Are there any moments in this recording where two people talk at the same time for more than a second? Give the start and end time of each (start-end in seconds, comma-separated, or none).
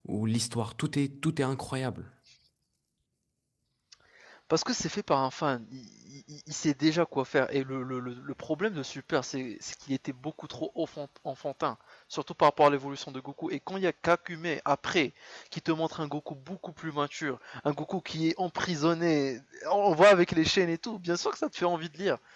none